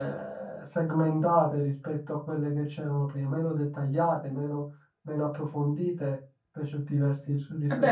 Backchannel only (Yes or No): No